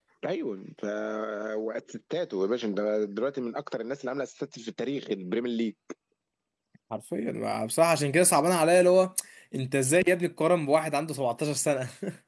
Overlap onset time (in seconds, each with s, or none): none